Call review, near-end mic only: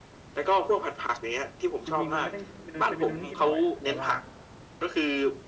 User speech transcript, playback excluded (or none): จริงๆมันไม่ได้เมนูเป็นเมนูที่กินบ่อยอ่ะแต่ว่า